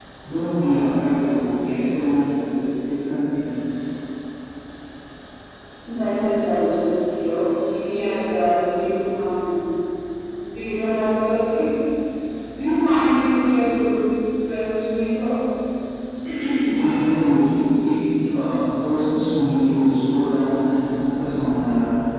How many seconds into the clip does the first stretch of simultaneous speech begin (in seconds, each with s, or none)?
none